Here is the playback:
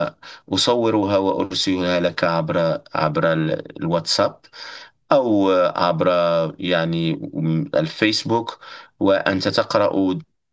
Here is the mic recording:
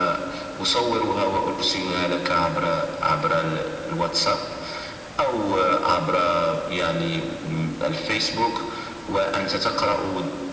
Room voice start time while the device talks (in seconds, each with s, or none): none